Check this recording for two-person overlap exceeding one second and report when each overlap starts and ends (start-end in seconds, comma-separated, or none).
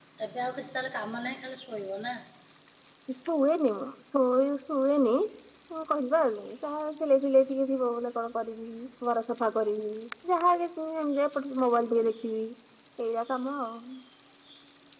none